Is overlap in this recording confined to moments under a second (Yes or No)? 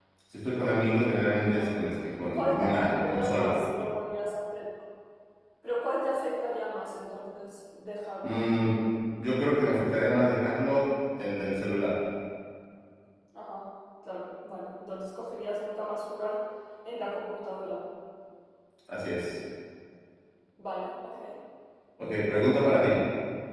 No